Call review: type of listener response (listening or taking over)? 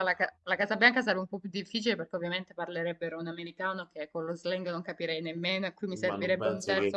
taking over